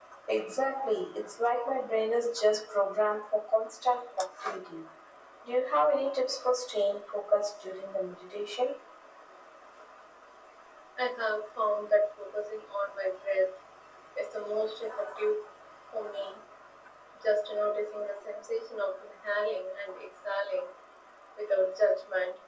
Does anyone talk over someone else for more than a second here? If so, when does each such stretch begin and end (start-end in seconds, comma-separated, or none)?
none